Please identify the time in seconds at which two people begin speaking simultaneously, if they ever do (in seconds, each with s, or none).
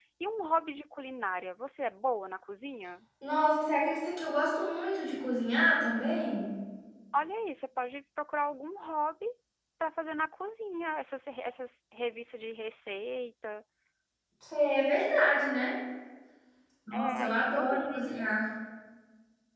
16.9 s